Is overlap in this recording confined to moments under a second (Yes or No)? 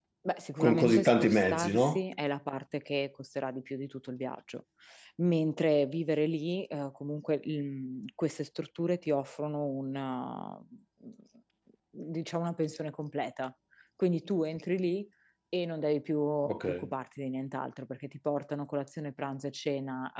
No